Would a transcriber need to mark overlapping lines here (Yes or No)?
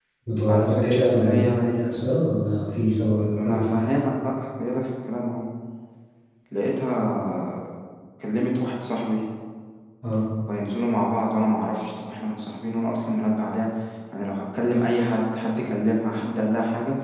Yes